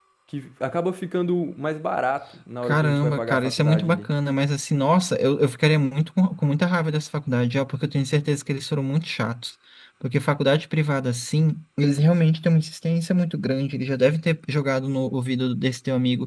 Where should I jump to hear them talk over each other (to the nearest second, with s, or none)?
3 s